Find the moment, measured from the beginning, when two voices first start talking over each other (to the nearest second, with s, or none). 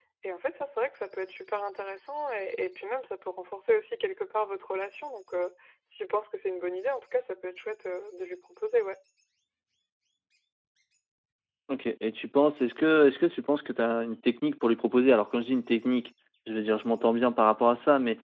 none